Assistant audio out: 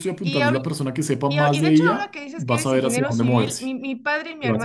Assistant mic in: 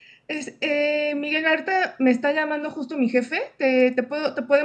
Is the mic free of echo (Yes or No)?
Yes